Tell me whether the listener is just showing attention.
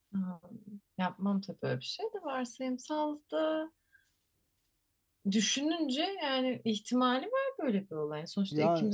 Yes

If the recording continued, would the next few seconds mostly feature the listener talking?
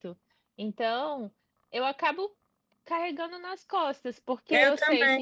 No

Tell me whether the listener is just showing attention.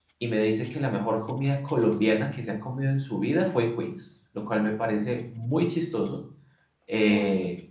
Yes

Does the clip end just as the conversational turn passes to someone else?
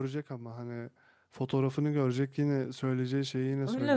Yes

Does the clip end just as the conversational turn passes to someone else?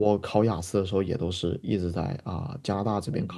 Yes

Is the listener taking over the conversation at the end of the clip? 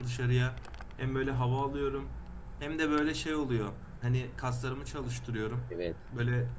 No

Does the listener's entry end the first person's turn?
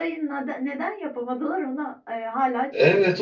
Yes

